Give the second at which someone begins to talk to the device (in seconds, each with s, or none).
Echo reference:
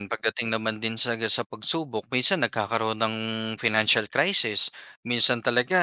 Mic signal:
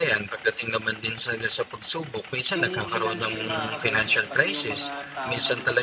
2.6 s